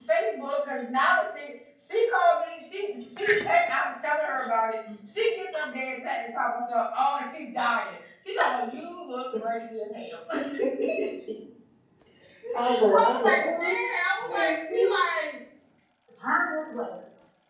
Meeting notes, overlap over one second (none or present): present